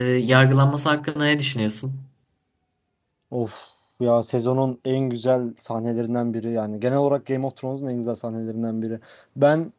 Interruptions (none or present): none